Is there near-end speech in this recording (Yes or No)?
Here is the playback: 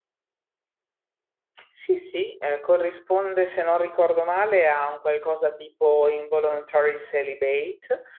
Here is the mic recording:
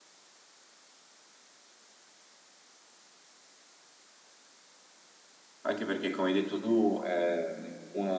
Yes